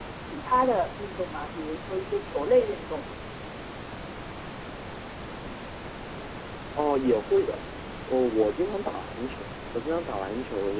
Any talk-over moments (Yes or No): No